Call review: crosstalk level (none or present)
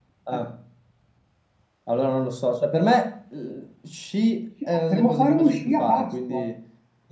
present